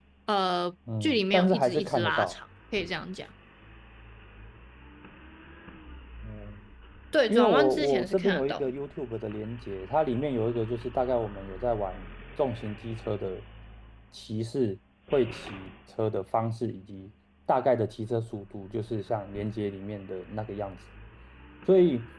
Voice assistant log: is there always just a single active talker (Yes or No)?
No